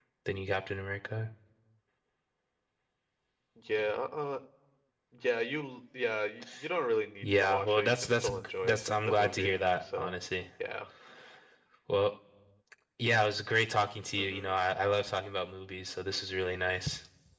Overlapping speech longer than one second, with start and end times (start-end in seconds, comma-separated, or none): 7.2-10.1